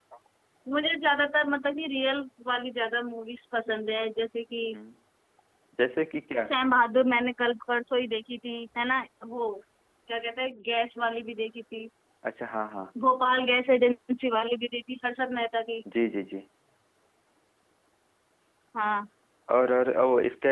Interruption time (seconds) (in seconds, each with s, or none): none